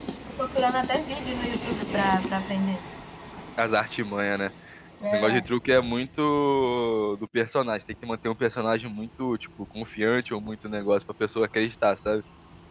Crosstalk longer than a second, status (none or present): none